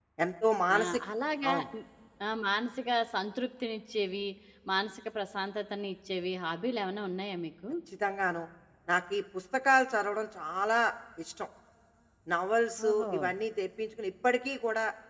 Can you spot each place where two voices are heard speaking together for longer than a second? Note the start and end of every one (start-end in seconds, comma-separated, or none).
none